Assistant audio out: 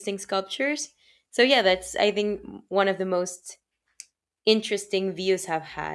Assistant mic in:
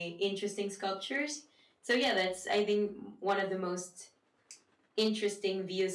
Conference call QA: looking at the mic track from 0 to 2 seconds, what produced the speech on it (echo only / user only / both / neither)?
echo only